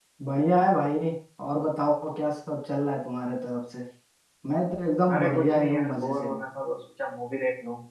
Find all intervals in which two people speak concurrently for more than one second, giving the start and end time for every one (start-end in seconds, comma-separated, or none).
5.2-6.4